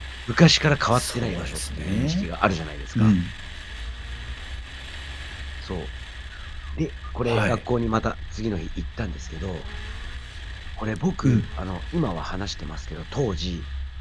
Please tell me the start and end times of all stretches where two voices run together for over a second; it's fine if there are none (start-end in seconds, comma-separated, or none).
0.9-2.3